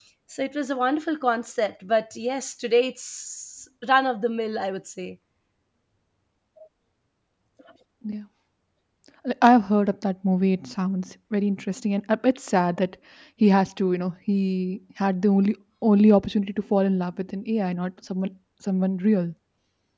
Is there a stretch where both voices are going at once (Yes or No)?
No